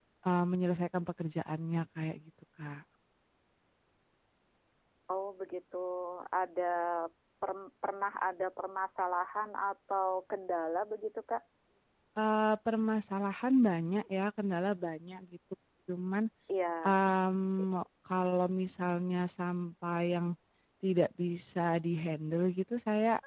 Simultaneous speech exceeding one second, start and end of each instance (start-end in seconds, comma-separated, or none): none